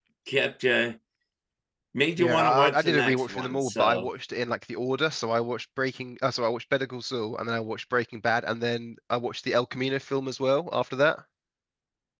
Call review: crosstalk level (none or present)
present